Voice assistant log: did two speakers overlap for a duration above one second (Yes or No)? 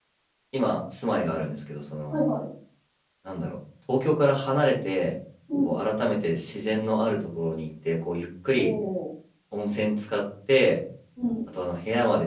No